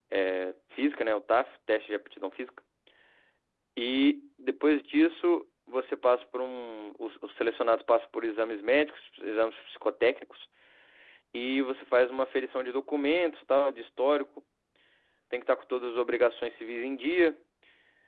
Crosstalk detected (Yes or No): No